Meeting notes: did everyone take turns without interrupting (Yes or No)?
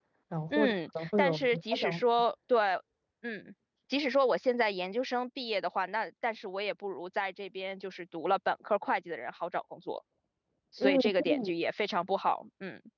No